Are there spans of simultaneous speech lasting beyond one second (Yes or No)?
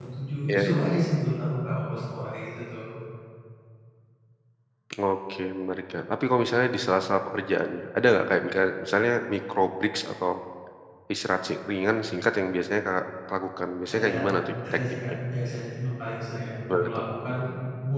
No